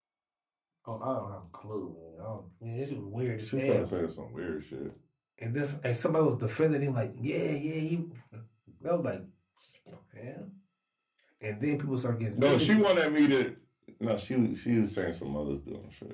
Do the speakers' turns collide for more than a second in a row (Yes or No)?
No